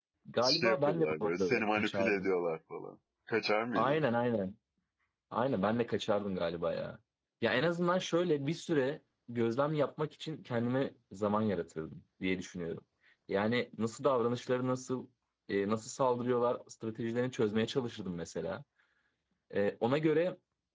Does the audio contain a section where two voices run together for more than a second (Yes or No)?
Yes